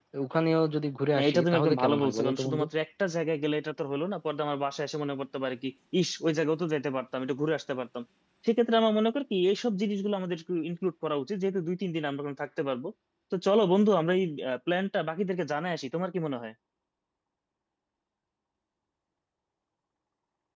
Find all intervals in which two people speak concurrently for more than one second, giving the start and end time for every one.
1.1-2.6

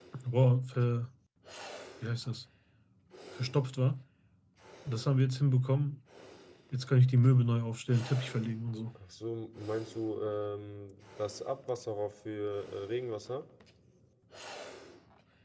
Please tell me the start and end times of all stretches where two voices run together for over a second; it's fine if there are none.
none

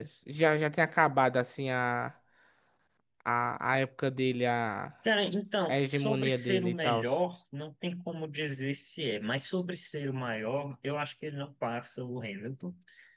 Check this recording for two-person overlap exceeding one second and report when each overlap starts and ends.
5.7-7.0

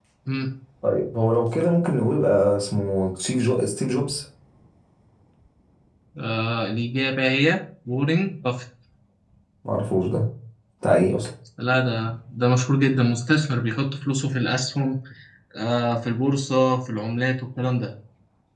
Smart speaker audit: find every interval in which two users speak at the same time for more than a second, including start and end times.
none

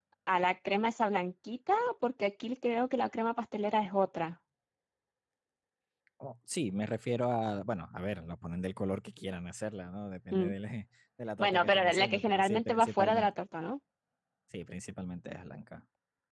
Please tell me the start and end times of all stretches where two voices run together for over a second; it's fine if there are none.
11.4-13.3

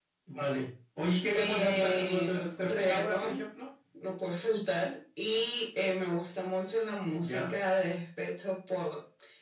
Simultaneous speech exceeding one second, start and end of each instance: 1.3-3.4

